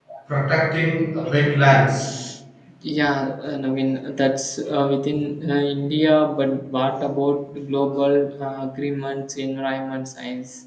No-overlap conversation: Yes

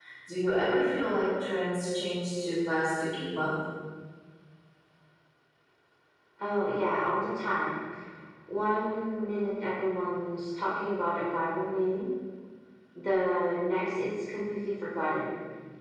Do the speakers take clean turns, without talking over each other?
Yes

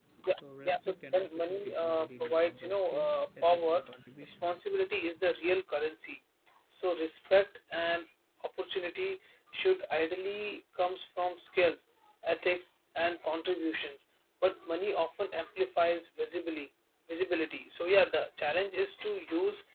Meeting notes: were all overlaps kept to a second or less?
No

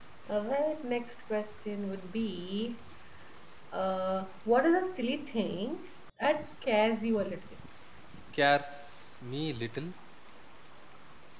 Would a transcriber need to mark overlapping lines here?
No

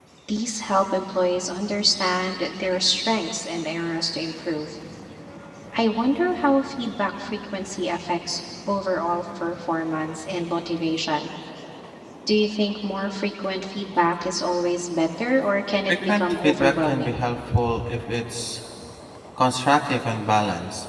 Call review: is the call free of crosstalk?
No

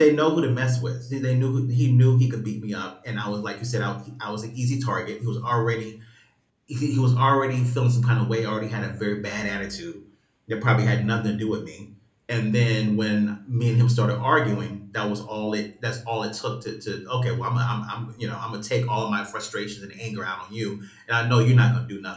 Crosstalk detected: No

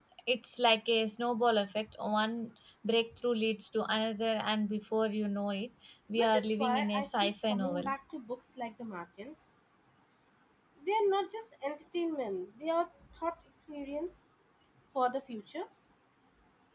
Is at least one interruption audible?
Yes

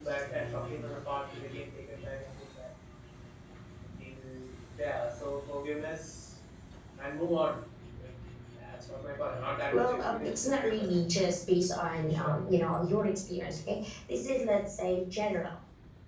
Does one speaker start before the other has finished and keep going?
Yes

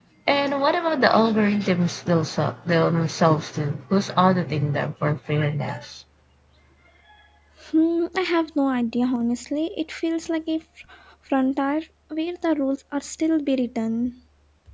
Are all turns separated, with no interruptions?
Yes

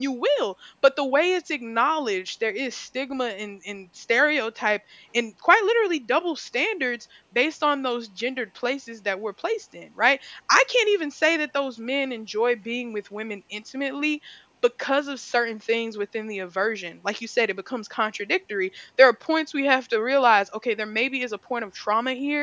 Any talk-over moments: No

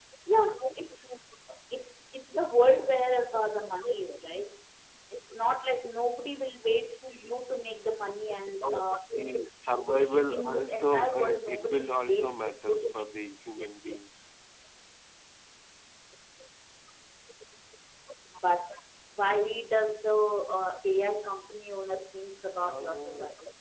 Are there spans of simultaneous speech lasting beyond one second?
Yes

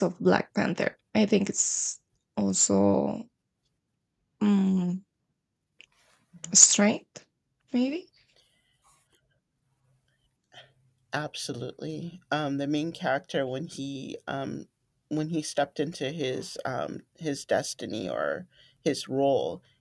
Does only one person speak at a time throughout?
Yes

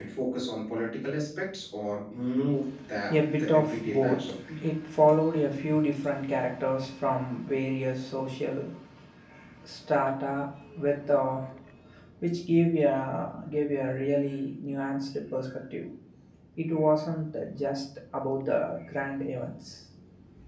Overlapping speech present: Yes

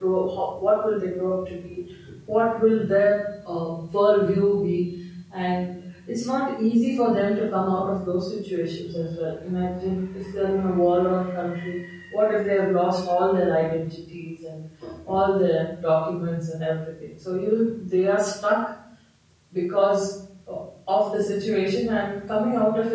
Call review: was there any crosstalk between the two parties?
No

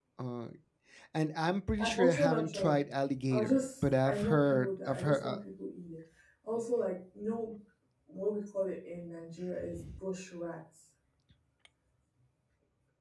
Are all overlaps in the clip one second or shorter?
No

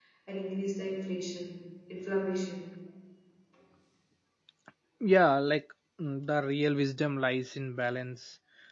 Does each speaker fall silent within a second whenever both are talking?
Yes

